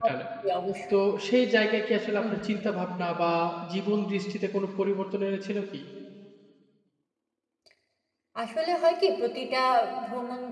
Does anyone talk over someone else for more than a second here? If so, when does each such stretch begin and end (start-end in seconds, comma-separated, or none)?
none